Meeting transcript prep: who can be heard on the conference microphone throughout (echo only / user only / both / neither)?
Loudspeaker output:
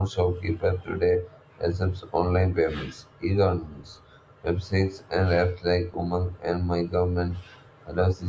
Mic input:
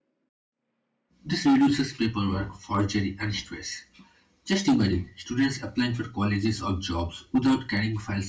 user only